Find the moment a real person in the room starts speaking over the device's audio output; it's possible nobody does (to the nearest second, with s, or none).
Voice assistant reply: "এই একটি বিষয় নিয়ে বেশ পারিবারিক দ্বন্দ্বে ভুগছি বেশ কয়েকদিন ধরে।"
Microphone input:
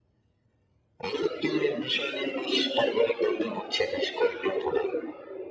none